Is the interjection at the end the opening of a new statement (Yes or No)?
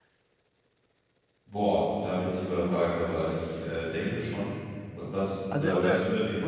Yes